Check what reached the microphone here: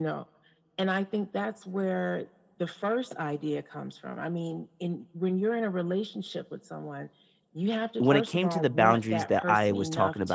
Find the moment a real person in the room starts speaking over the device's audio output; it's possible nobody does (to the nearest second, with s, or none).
8 s